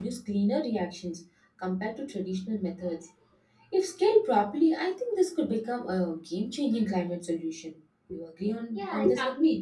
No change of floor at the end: No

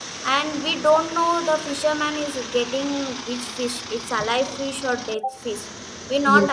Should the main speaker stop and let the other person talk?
No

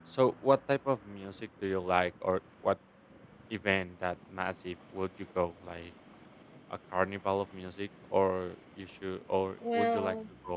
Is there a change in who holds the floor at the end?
No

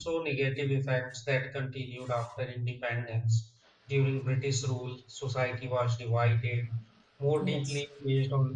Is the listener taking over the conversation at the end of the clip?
No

